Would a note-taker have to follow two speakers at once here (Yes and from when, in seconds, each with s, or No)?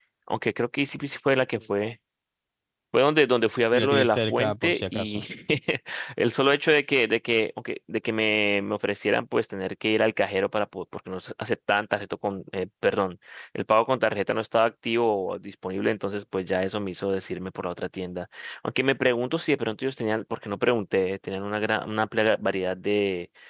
Yes, from 3.7 s